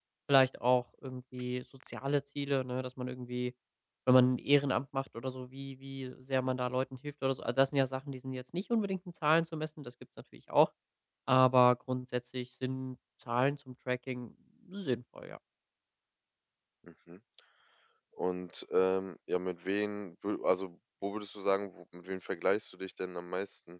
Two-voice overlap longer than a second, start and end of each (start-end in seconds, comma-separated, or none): none